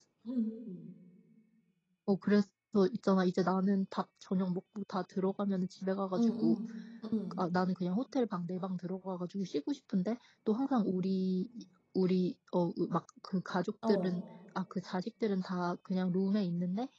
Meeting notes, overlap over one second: none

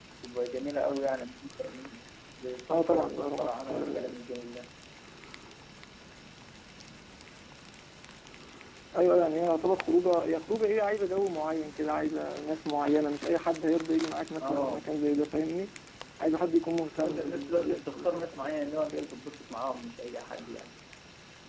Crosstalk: present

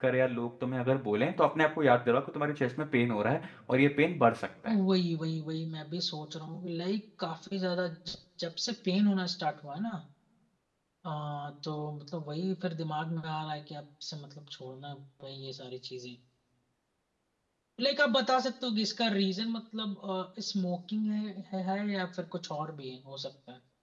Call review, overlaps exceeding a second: none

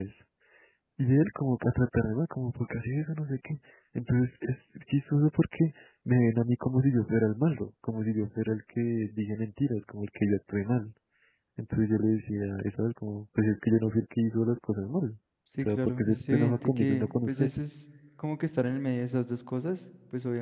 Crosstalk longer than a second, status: present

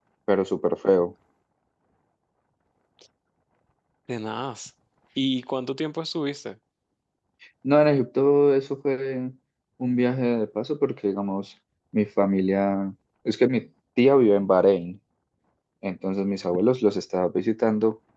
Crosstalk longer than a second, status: none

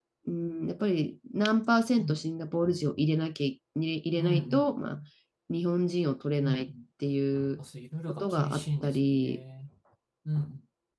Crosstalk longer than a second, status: present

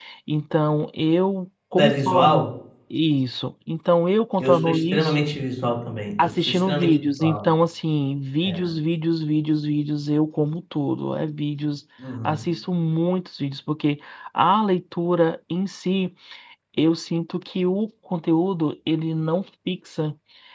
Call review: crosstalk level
present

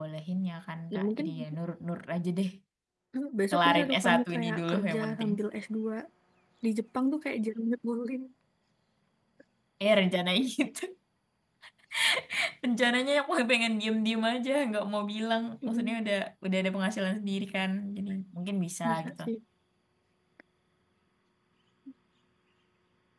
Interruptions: present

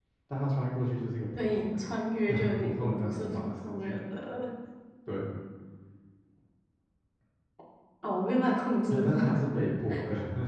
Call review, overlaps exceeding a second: present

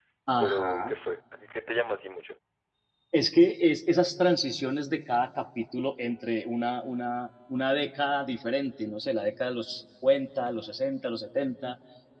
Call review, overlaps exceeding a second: none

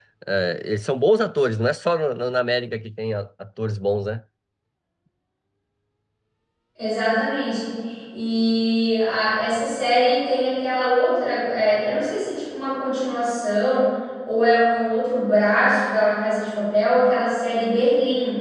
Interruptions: none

